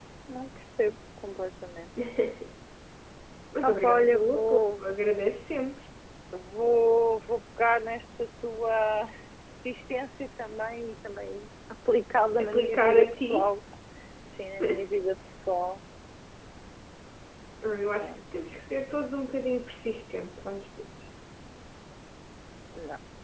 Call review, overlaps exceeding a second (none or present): present